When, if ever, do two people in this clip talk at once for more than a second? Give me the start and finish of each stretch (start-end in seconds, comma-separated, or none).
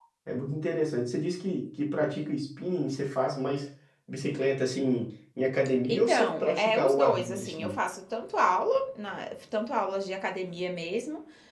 5.9-7.7